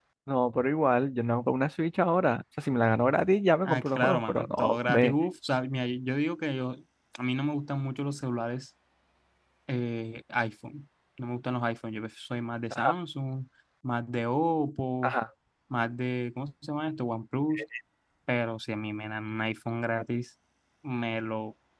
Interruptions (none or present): present